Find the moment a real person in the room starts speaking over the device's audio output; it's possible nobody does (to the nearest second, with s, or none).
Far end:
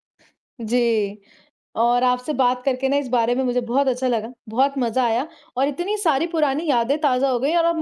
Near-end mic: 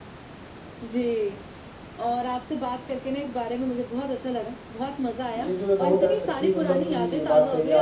5 s